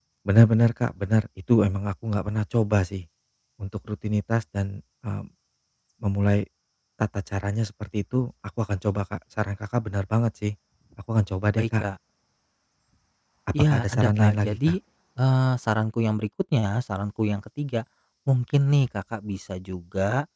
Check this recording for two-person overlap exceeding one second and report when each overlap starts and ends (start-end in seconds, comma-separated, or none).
13.5-14.8